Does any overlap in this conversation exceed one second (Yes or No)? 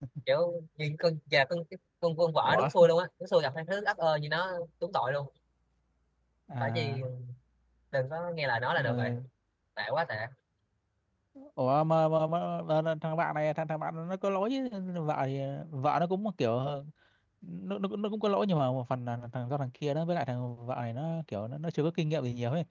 No